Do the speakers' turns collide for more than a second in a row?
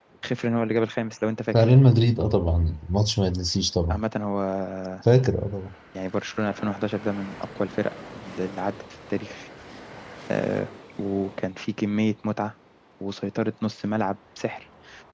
No

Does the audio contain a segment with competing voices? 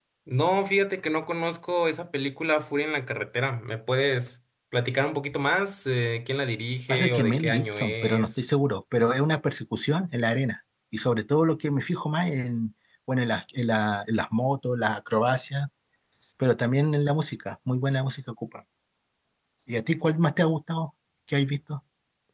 Yes, from 6.9 s

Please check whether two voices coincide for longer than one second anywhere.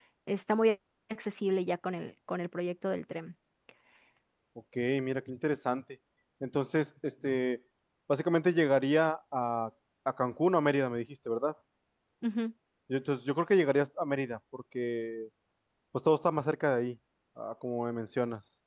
No

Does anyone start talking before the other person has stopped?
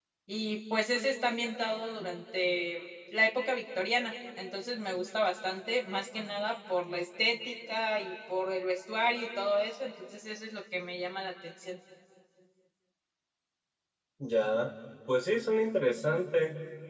No

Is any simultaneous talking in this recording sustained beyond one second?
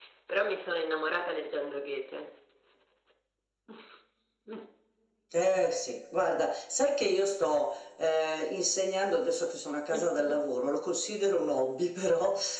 No

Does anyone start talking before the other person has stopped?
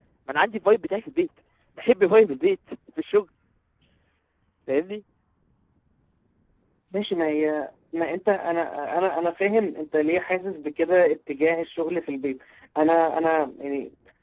No

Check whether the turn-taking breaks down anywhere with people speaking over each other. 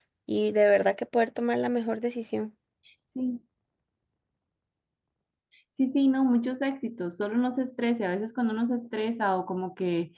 No

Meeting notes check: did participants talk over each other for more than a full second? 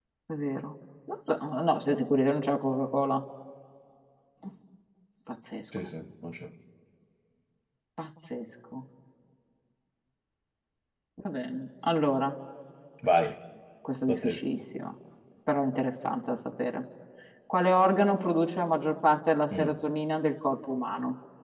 No

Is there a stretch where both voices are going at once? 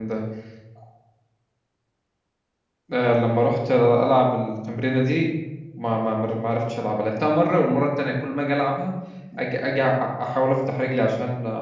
No

